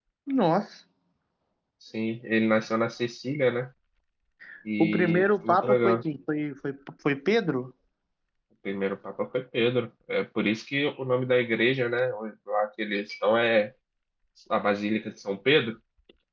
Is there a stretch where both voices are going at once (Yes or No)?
Yes